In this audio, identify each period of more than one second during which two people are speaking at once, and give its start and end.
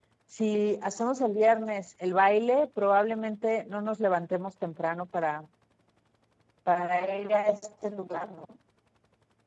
none

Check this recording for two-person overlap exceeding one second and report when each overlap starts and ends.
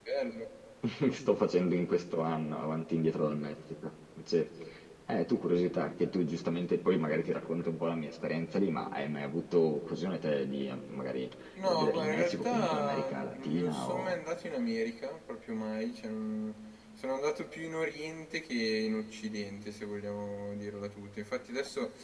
11.7-14.2

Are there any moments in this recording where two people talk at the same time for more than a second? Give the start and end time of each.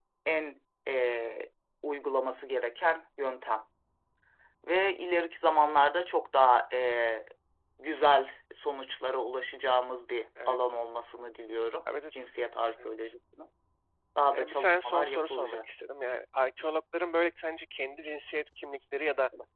14.3-15.6

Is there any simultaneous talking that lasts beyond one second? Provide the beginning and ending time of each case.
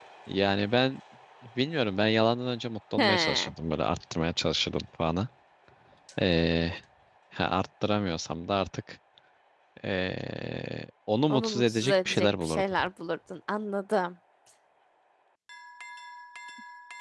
11.3-12.7

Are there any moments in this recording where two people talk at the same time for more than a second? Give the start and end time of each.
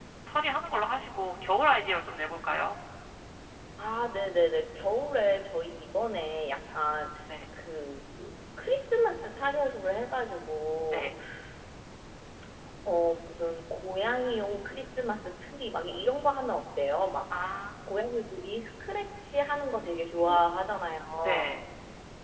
none

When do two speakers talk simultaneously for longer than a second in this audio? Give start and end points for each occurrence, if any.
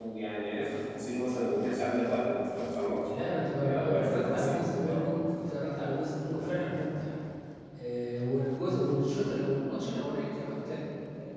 3.6-5.0

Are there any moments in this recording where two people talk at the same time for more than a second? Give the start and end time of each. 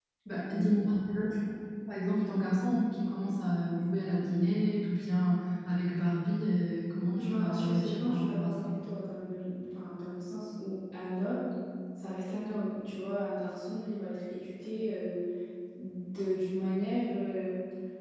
7.2-8.7

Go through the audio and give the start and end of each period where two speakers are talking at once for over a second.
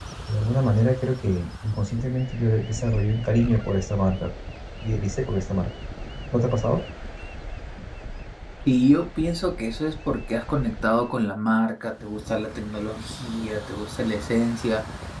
none

